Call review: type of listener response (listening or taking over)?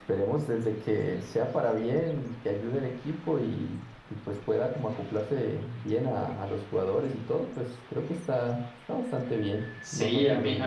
taking over